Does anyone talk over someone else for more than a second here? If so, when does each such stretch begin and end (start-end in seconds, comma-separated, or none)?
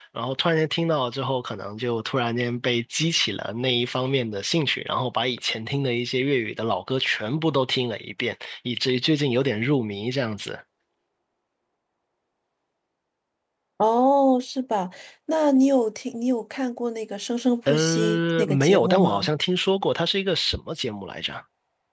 17.7-19.3